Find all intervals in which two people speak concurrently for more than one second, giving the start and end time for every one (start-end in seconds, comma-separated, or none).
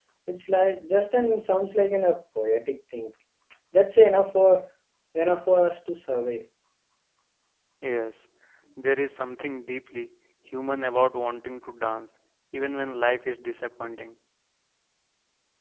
none